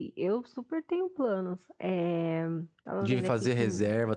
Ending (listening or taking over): taking over